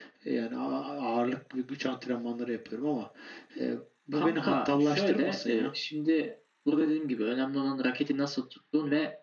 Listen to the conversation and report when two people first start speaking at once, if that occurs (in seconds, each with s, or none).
4.1 s